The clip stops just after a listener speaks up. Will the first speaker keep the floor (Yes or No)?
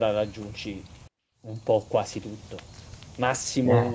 Yes